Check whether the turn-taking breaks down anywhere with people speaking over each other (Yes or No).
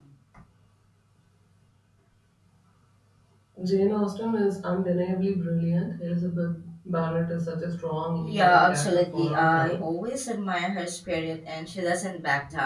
Yes